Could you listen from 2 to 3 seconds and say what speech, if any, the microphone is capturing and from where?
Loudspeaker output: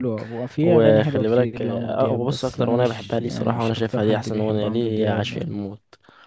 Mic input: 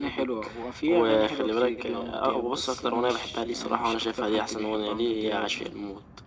echo only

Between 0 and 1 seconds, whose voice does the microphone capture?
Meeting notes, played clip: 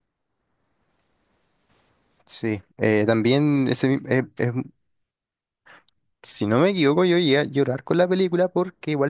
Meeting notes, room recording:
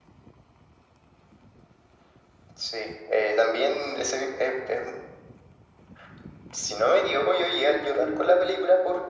neither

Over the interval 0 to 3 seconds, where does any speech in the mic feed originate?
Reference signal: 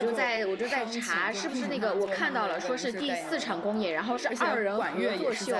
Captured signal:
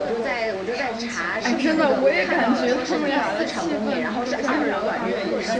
both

